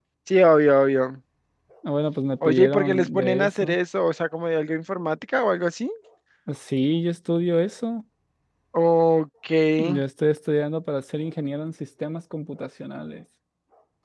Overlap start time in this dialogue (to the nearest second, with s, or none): 2 s